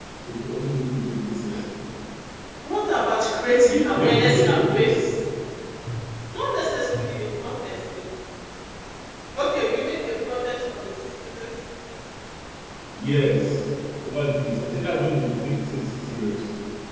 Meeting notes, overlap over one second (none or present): present